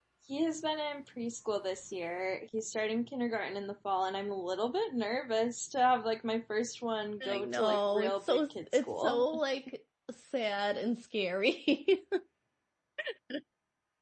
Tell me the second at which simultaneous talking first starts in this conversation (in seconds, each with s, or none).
7.2 s